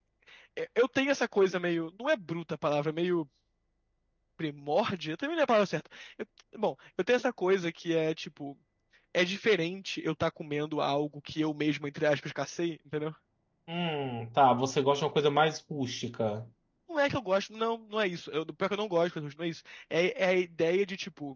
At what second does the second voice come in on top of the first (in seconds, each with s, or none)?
none